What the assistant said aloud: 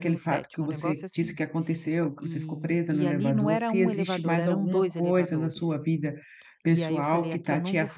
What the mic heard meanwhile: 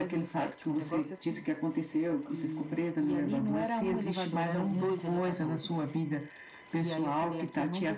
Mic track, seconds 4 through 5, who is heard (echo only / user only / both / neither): both